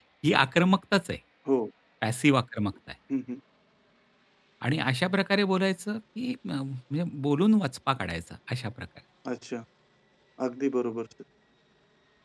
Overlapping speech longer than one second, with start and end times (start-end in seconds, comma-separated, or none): none